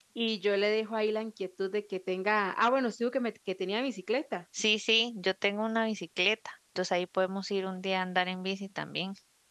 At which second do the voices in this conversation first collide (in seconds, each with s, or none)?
none